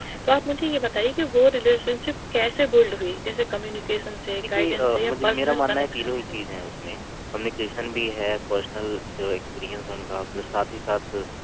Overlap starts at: 4.4 s

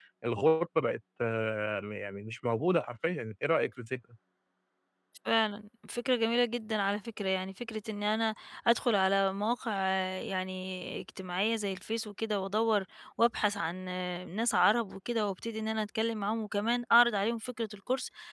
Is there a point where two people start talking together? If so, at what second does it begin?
none

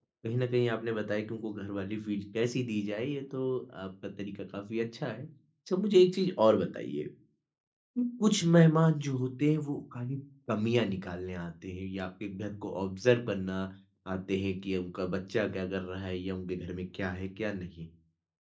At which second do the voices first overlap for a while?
none

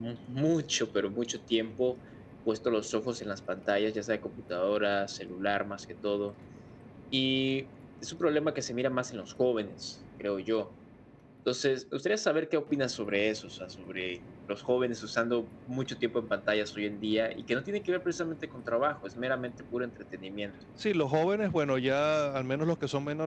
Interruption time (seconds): none

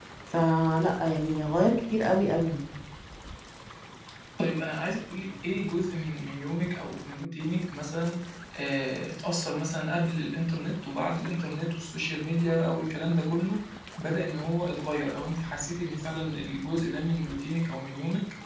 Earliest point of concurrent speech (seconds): none

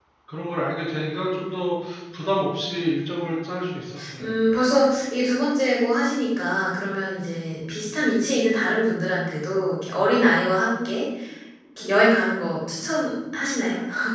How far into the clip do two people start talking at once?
none

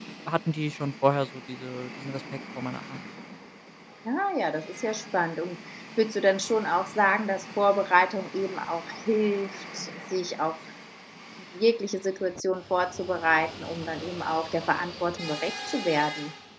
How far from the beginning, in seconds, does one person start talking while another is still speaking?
none

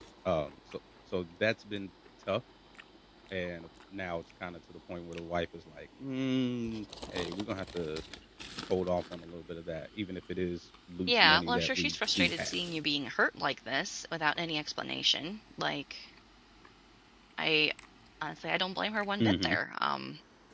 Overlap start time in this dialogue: 11.1 s

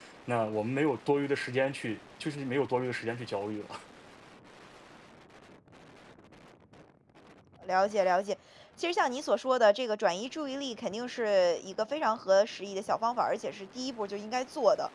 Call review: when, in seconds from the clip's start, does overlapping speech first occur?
none

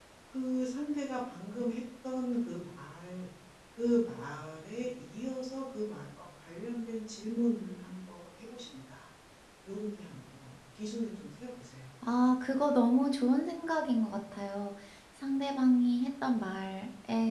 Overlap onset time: none

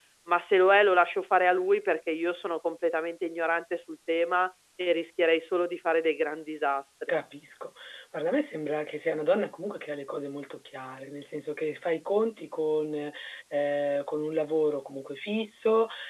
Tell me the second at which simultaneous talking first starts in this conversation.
none

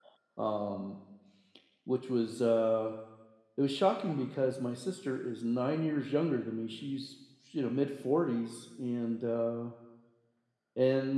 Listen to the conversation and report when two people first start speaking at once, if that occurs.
none

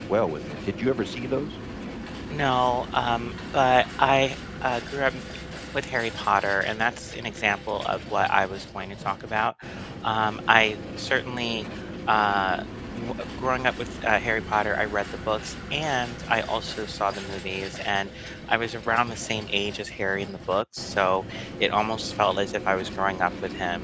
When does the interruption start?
none

